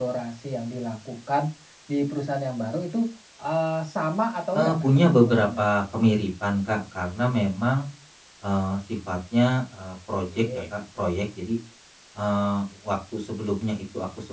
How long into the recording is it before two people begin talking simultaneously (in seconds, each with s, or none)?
4.5 s